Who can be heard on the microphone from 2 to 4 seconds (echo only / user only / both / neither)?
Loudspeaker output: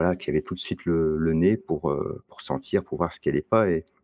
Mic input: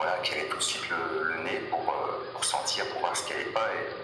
echo only